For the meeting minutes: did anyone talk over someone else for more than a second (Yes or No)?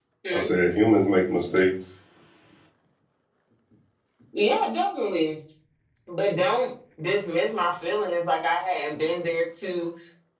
No